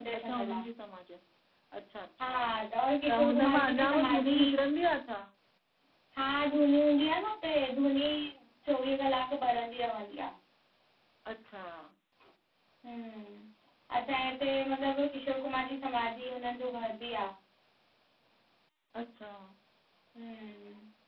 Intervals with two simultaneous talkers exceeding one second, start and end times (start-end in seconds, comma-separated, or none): 3.1-4.4